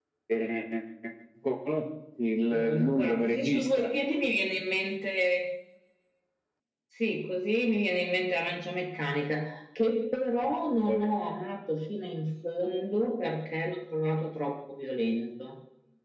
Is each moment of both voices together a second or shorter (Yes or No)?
No